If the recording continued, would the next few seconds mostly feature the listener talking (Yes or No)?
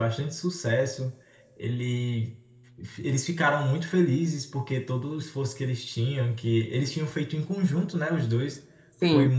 No